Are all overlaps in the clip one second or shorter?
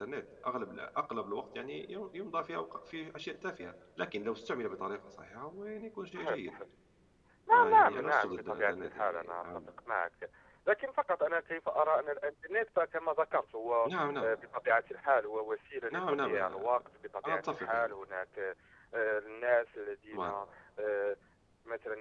No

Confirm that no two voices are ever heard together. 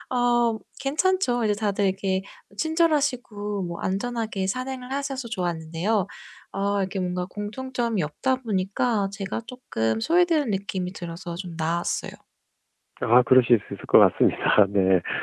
Yes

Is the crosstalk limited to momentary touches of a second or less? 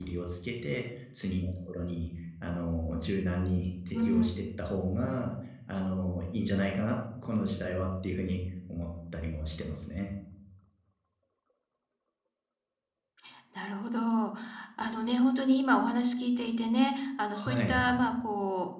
Yes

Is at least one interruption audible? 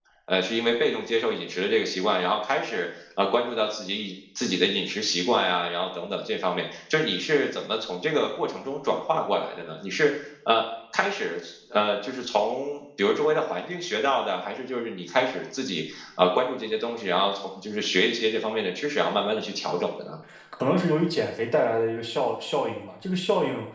No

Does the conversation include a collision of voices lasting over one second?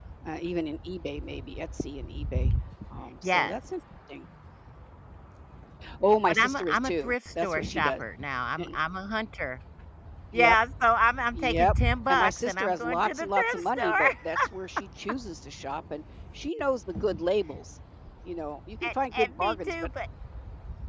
Yes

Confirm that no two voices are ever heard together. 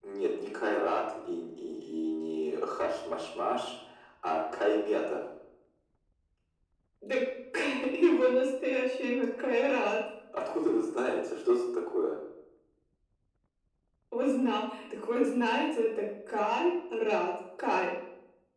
Yes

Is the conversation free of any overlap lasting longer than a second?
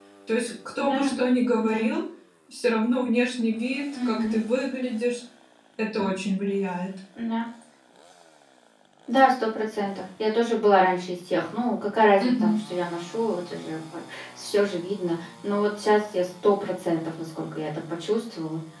Yes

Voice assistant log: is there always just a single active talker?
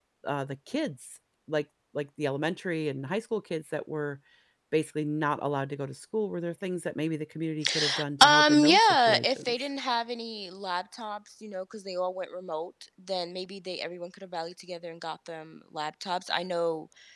No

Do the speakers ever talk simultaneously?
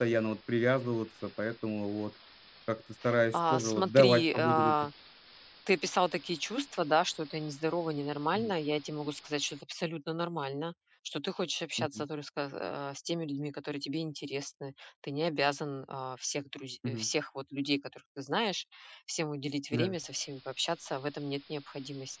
Yes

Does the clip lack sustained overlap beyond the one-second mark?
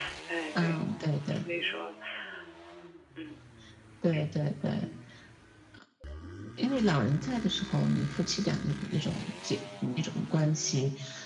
Yes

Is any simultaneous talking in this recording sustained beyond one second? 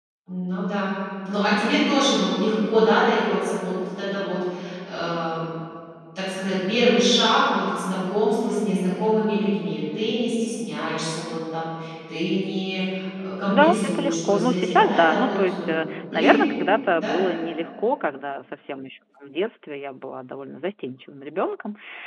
Yes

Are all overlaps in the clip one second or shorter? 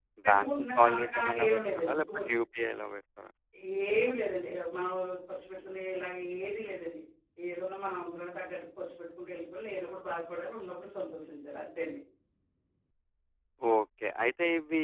No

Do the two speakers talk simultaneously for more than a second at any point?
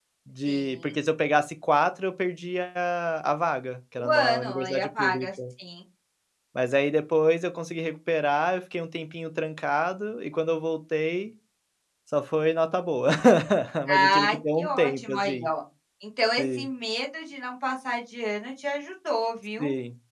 Yes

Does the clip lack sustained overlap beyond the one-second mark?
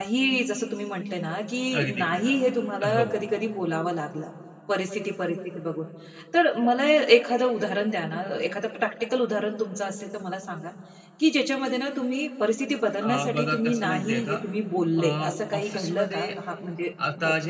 No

